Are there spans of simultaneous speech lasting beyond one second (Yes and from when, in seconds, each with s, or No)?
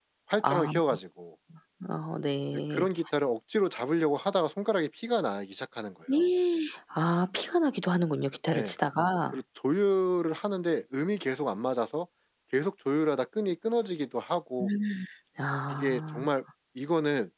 No